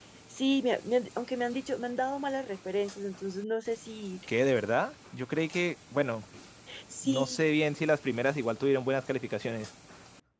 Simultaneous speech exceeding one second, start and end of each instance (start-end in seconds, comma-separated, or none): none